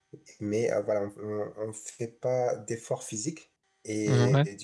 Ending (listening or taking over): listening